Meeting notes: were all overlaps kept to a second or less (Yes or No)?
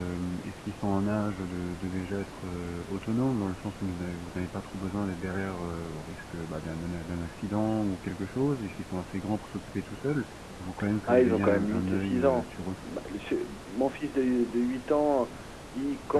No